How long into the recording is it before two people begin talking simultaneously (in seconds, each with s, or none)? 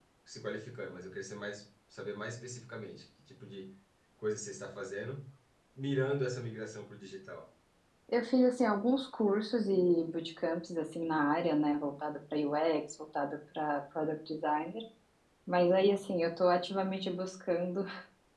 none